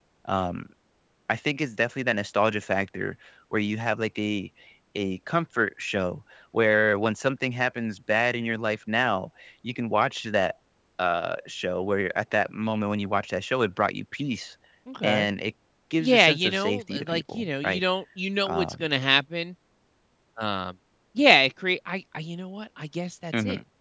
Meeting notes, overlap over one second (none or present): present